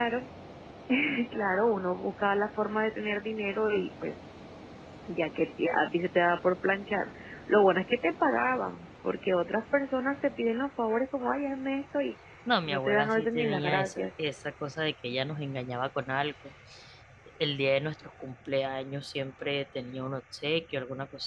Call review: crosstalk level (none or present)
present